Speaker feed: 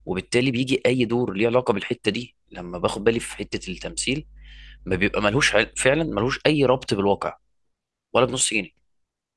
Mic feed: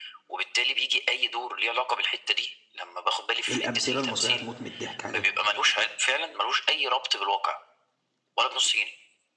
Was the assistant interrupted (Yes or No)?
Yes